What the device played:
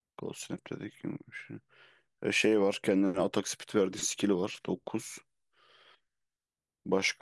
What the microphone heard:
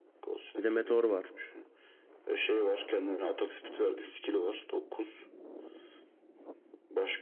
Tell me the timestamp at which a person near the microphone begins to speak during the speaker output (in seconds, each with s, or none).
0.6 s